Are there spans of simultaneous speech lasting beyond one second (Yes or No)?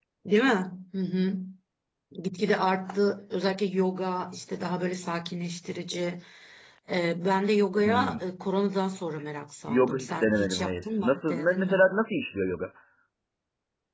Yes